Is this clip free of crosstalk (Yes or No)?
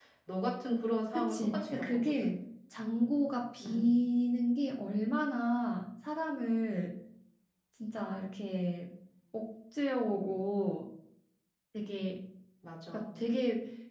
No